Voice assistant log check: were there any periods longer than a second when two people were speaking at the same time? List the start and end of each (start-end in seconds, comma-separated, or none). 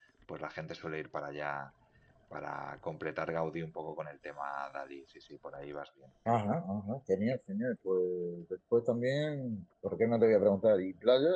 none